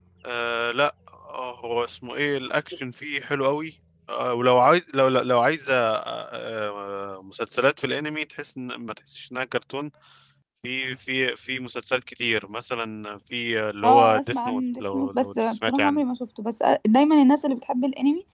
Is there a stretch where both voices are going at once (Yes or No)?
Yes